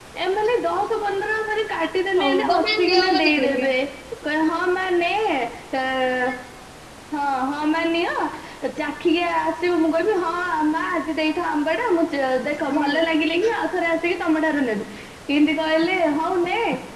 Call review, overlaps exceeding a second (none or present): present